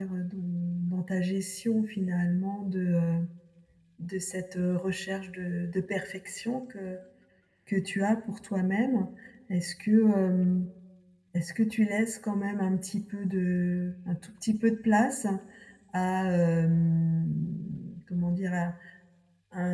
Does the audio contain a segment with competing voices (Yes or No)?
No